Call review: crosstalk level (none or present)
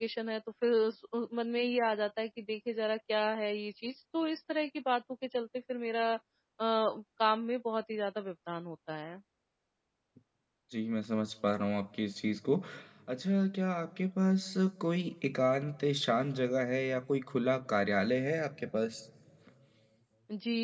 none